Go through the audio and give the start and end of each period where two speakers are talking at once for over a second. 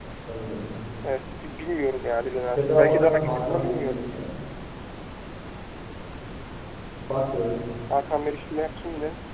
2.6-4.2

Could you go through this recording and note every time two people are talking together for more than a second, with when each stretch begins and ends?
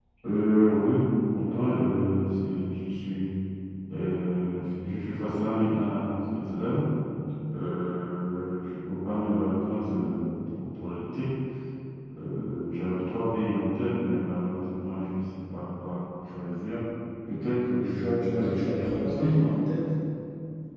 17.8-19.6

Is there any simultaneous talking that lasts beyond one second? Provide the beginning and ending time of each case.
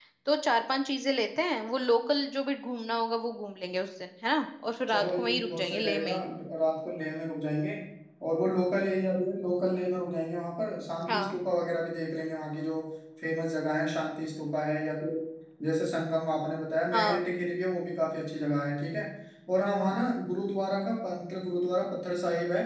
4.9-6.1

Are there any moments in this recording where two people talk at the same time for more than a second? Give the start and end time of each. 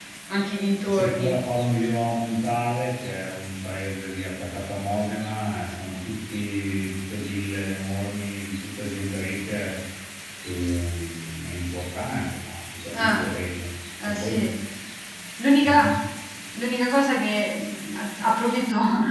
none

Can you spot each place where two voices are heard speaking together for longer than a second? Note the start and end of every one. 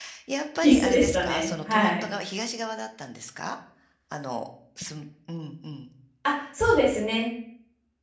0.6-2.0

